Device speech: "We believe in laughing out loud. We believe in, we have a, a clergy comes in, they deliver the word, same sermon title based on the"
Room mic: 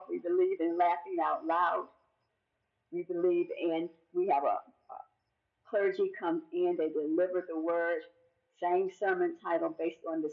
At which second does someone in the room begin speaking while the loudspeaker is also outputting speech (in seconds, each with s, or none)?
none